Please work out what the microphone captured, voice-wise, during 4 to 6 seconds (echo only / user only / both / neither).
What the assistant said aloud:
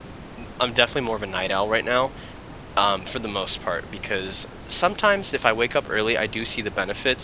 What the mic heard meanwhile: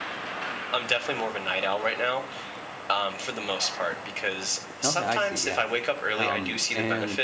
both